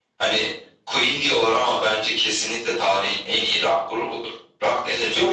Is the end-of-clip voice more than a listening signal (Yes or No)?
Yes